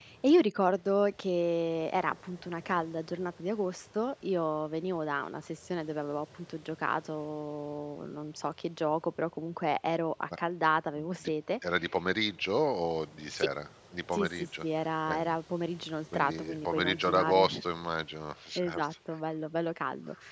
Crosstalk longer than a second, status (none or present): present